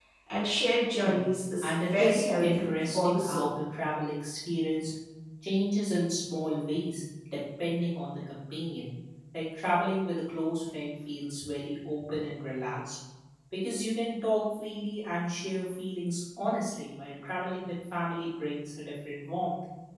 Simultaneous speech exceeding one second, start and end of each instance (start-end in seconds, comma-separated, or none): 1.6-3.5